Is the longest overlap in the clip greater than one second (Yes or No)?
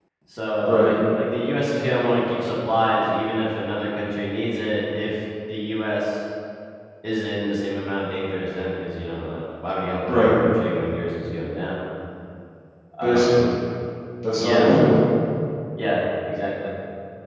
No